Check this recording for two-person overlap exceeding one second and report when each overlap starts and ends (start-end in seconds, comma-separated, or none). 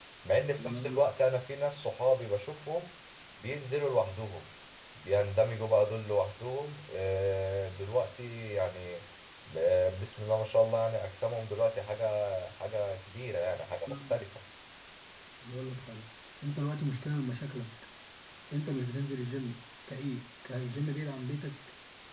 none